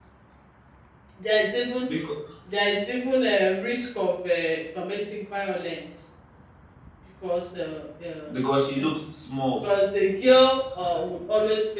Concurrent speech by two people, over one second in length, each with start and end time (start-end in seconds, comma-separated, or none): none